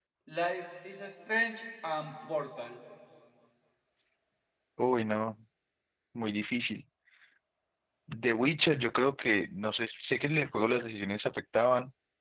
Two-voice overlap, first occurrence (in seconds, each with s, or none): none